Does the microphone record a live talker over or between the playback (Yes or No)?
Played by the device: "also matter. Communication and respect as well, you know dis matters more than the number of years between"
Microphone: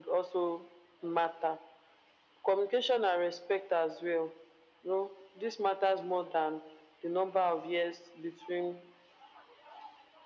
No